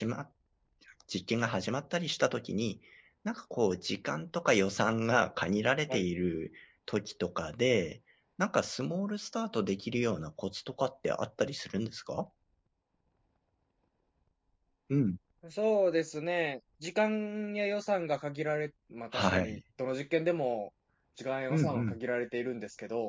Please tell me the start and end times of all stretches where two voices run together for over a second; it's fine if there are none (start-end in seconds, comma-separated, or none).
none